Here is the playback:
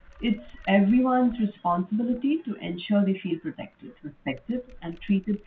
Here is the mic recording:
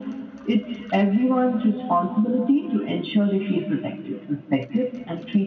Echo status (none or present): present